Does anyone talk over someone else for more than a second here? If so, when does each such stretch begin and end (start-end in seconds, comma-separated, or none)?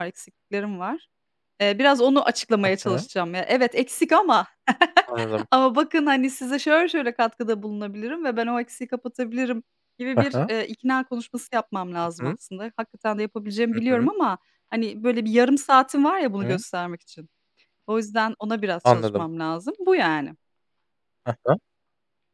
none